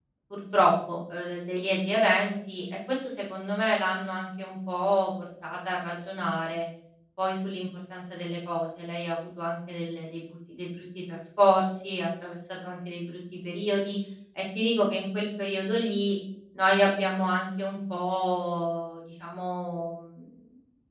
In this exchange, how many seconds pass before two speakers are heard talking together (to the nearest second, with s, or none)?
none